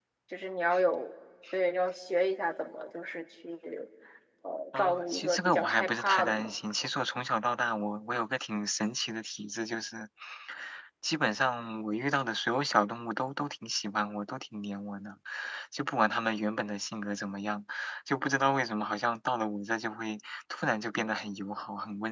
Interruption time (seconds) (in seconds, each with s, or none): 4.7 s